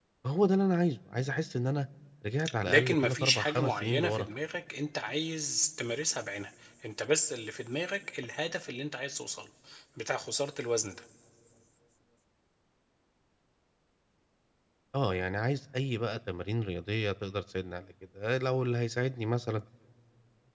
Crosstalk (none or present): present